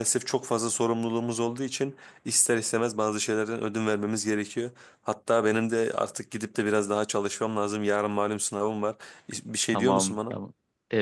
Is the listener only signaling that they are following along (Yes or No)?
No